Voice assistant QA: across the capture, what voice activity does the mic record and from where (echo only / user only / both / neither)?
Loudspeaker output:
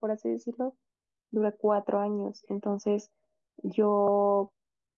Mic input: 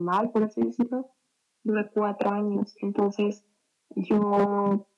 echo only